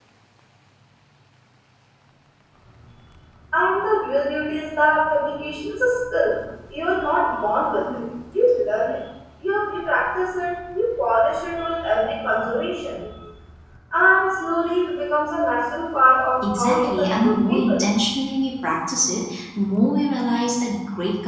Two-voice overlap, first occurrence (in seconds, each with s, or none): 16.4 s